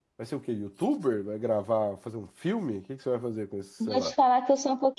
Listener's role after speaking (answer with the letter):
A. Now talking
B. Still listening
A